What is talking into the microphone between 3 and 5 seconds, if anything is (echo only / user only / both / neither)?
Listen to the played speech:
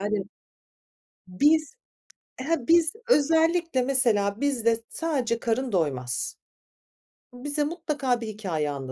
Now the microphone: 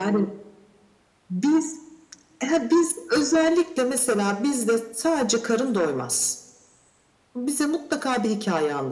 echo only